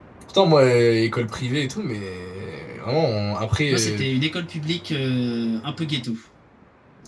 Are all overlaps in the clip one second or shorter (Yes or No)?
Yes